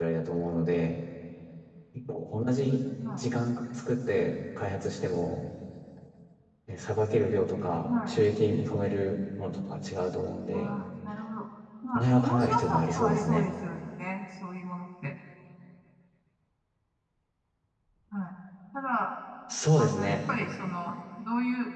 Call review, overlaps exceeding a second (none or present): present